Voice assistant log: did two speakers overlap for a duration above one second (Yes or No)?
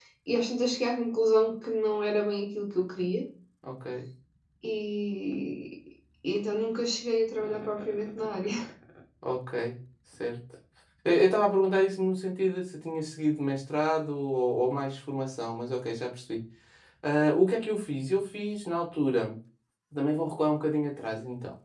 No